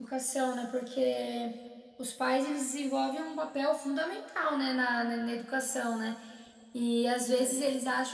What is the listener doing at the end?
listening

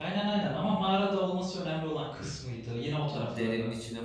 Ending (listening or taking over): taking over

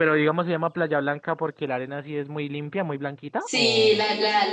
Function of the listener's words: taking over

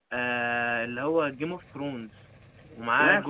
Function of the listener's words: listening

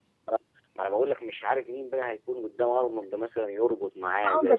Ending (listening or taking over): taking over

